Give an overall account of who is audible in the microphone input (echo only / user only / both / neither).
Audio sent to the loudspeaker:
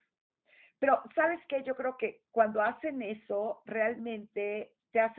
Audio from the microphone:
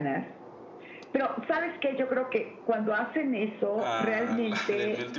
both